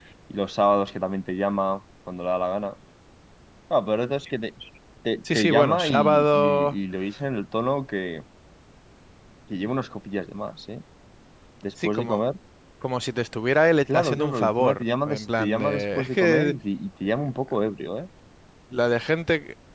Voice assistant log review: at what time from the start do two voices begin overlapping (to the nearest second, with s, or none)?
5 s